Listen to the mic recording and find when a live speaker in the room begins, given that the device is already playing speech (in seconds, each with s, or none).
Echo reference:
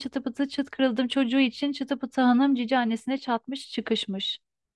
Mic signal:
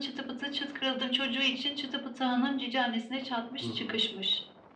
3.6 s